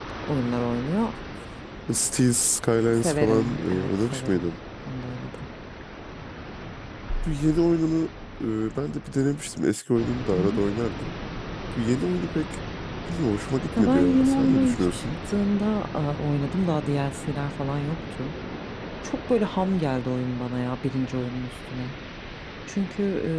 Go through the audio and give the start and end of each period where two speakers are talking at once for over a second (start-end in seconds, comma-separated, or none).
2.7-4.5, 13.8-15.0